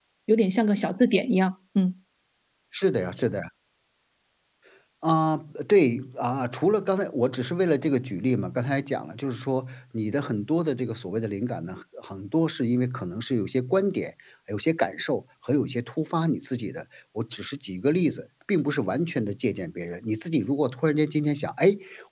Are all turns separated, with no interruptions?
Yes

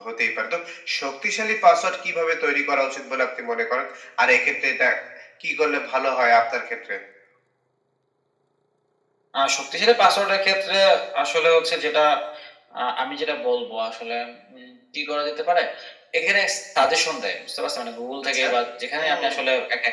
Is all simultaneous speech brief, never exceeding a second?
Yes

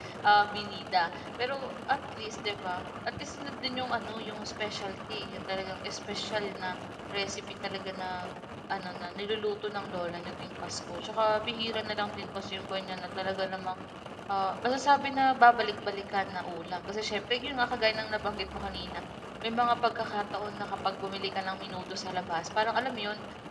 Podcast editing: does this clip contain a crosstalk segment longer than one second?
No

